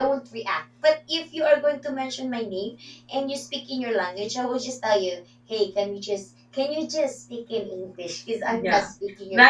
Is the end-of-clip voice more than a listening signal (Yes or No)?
Yes